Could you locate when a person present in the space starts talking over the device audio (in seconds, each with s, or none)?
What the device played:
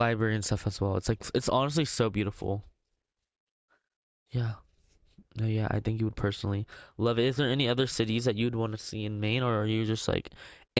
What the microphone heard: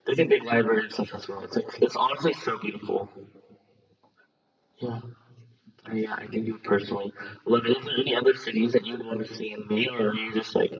none